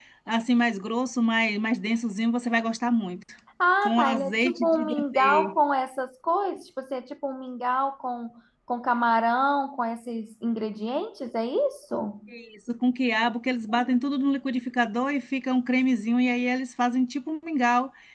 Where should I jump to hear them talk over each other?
3.8 s

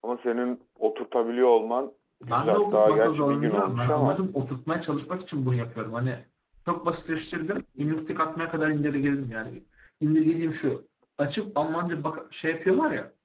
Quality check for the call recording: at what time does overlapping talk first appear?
2.2 s

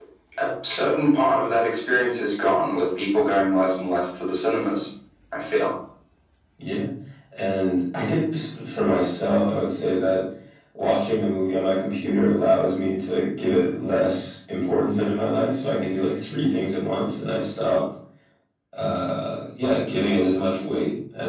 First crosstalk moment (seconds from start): none

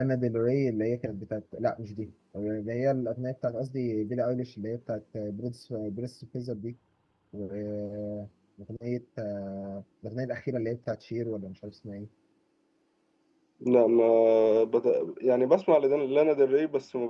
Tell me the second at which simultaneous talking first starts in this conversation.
none

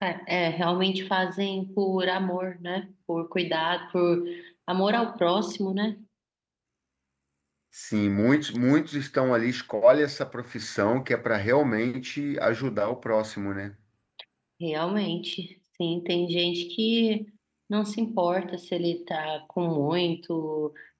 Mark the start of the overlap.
none

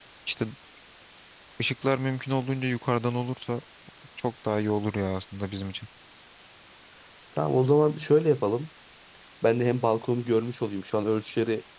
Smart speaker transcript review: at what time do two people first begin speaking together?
none

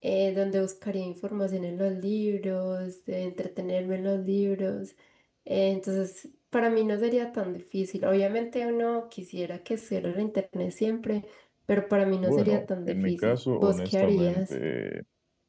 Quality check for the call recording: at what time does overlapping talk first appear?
12.2 s

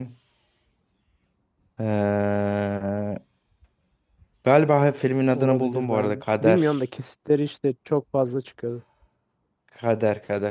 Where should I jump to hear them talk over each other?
5.3 s

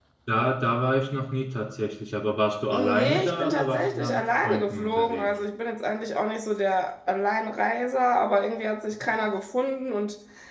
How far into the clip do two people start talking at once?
2.7 s

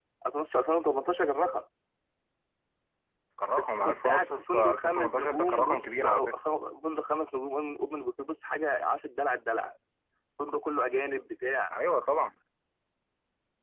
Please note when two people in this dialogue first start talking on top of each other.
3.8 s

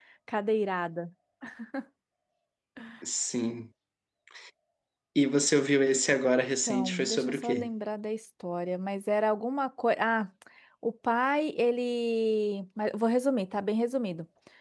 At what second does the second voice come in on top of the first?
6.4 s

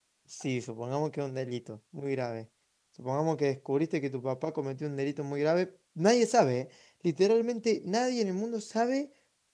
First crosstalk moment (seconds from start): none

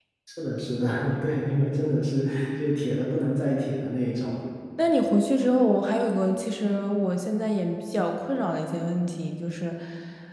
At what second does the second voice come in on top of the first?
none

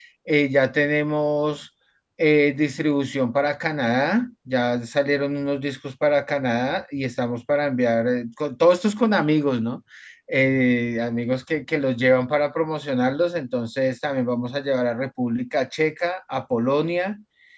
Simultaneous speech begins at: none

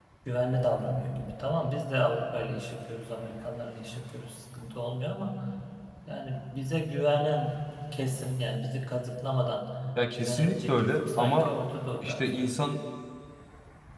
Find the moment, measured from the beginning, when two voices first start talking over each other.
10.2 s

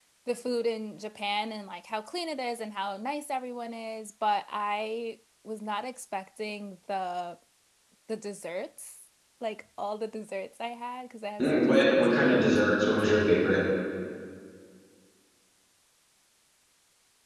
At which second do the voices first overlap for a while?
11.4 s

